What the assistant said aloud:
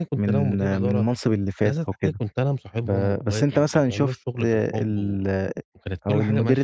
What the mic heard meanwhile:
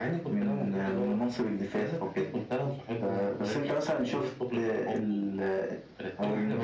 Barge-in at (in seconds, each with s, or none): none